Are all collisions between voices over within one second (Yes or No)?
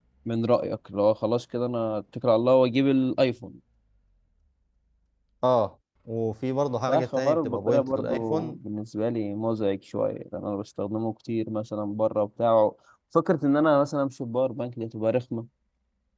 No